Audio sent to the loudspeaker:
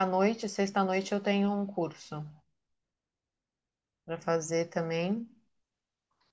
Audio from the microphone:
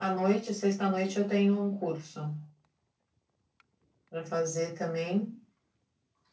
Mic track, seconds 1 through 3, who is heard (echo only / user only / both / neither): echo only